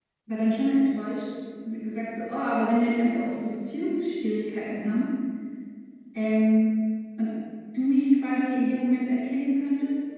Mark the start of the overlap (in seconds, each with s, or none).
none